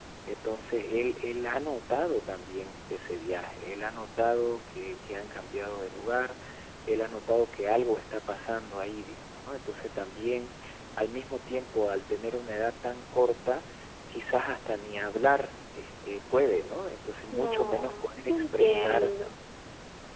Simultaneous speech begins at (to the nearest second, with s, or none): 17 s